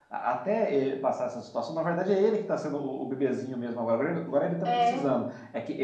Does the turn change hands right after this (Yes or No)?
No